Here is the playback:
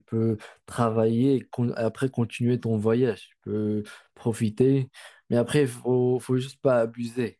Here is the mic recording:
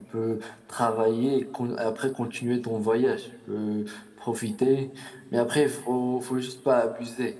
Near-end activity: none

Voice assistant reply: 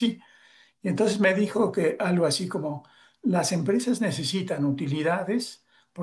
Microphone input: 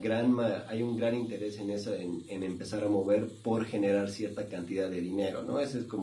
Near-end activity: present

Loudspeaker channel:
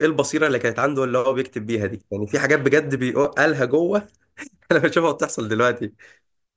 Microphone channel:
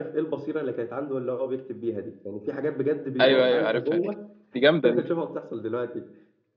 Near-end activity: present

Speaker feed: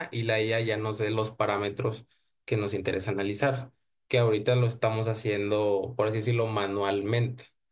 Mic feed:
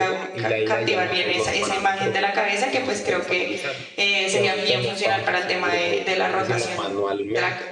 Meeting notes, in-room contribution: present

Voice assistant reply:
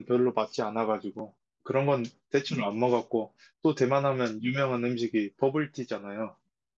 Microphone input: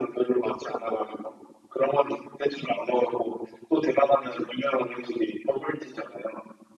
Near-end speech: none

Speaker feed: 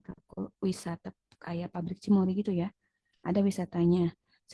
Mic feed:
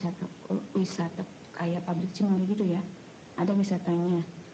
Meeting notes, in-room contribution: none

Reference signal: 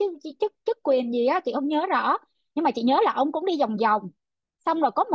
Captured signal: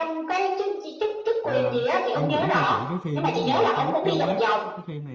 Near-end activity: present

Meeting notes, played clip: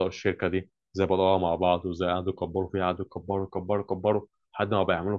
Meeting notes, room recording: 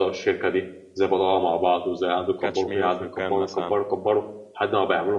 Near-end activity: present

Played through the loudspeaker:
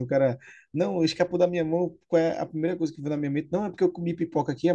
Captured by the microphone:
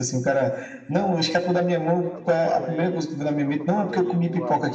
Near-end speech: present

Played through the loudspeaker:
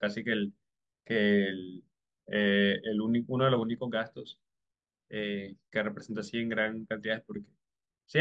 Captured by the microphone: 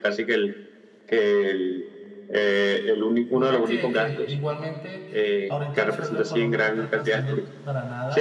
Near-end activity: present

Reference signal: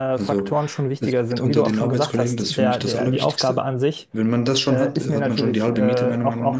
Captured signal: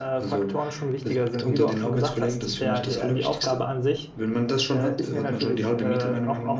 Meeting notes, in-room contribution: none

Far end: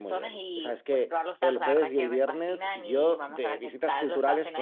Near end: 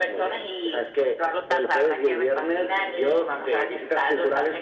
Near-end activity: none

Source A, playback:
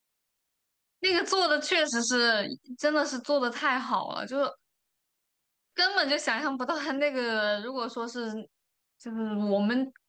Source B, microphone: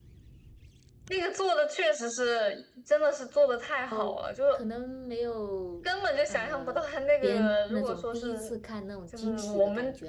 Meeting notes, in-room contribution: present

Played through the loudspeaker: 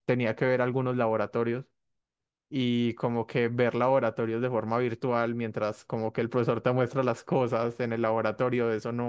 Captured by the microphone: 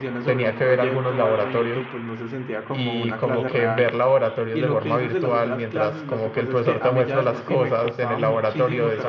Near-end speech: present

